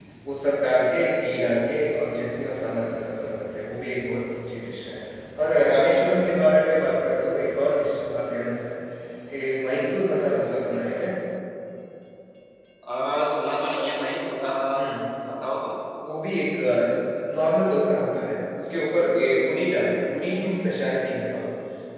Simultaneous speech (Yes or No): No